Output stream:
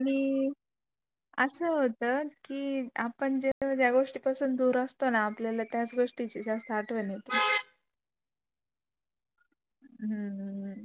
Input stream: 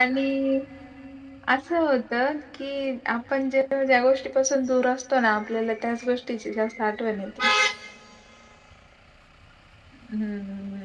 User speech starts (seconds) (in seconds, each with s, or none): none